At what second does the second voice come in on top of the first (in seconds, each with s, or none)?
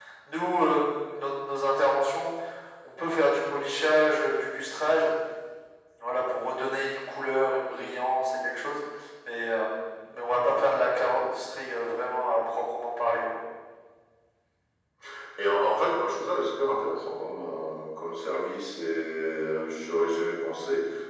none